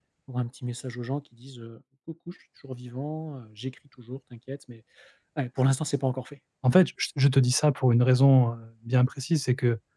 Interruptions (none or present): none